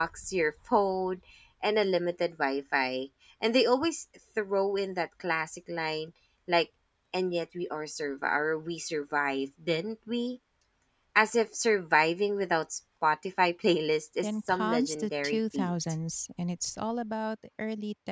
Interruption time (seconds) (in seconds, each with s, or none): 14.2 s